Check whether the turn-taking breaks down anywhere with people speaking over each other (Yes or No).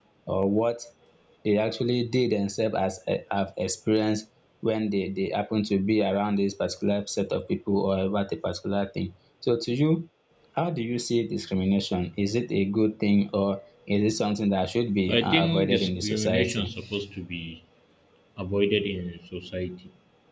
Yes